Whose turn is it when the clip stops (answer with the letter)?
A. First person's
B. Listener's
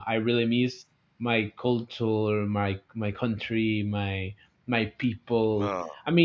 A